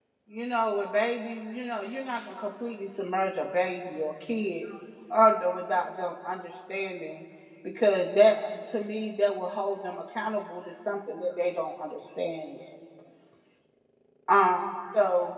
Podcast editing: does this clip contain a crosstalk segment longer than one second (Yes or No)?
No